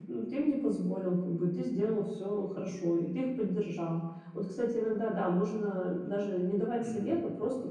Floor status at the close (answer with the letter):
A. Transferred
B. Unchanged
B